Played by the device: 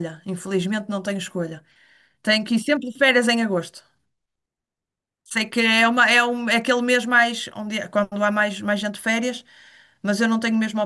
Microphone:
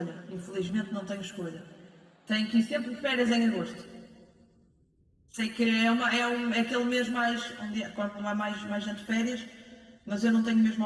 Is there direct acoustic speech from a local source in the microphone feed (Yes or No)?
No